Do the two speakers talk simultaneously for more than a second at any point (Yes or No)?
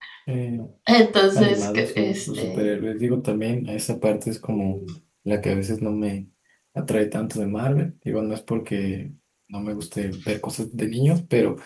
Yes